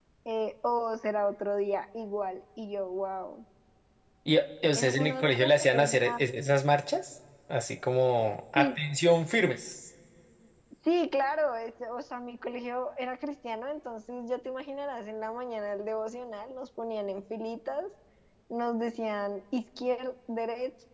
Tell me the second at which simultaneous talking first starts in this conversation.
4.8 s

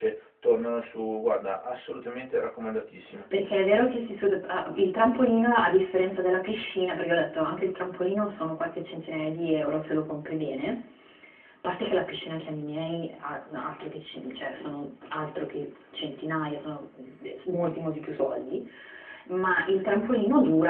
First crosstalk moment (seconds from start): none

